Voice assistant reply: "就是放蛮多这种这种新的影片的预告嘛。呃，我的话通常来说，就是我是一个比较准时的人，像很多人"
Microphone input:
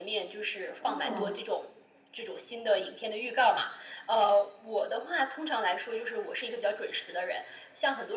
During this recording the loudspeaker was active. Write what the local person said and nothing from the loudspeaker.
哦。

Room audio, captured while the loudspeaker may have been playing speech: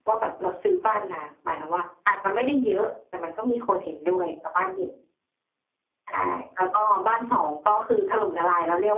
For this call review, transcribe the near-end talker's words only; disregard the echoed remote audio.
none

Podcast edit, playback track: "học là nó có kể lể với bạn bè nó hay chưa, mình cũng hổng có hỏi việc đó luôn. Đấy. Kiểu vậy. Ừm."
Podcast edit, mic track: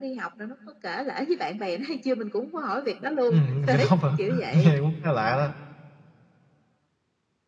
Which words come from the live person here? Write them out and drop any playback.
Ừm, bánh canh cá lóc hả? Nghe cũng khá lạ đó.

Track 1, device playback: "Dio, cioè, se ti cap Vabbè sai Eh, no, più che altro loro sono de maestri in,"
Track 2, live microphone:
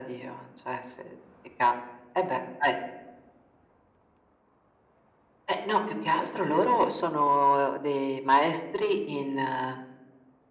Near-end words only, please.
none

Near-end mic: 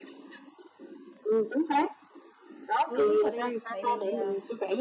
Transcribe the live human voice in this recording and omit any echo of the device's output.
Ừ, đúng rồi. Tại vì tại vì, à

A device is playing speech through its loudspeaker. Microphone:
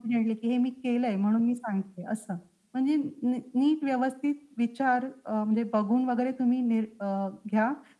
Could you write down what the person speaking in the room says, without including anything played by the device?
none

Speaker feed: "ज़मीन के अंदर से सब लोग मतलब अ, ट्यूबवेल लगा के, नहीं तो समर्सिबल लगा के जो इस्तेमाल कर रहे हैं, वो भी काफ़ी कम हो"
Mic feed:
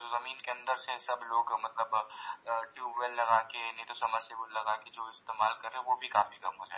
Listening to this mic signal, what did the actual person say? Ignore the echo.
none

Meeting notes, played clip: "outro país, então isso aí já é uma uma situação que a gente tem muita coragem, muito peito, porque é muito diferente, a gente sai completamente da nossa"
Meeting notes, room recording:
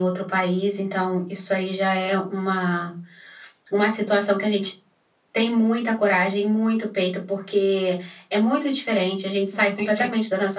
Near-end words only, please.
Entendi.

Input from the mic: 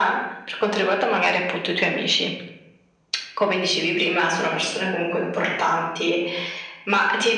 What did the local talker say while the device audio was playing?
none

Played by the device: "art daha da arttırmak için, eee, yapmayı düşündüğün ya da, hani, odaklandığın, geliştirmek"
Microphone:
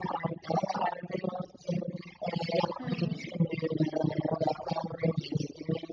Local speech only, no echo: Hı hı.

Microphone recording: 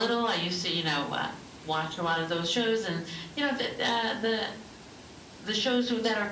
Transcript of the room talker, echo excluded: none

